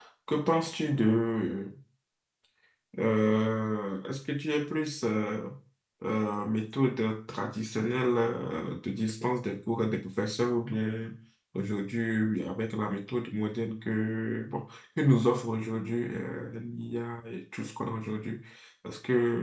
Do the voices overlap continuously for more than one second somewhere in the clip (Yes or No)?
No